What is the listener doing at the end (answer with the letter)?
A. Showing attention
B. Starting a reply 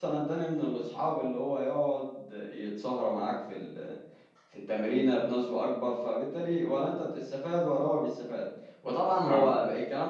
A